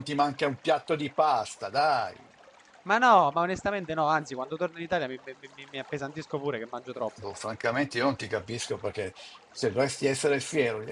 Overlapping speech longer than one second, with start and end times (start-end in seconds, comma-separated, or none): none